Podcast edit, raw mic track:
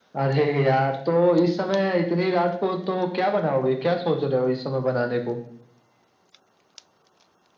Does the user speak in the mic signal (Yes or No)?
No